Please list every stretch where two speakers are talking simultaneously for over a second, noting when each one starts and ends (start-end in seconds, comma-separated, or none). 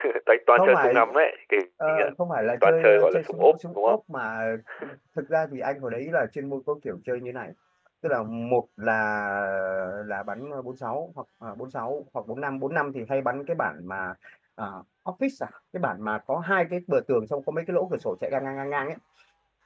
2.6-4.0